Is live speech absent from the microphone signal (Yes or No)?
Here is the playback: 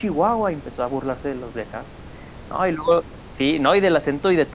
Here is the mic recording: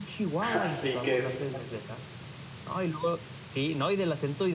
No